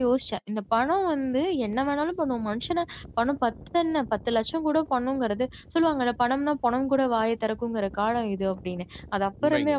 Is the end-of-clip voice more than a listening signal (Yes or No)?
No